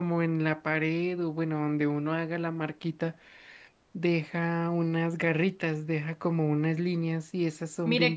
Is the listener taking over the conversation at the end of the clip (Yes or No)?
Yes